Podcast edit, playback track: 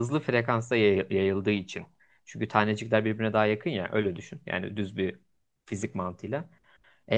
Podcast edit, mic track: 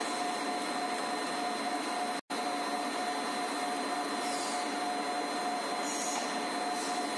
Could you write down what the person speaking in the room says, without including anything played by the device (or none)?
none